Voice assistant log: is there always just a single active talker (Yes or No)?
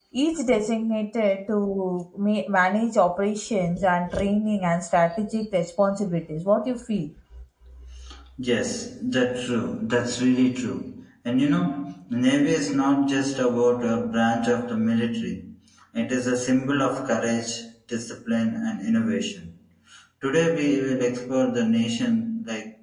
Yes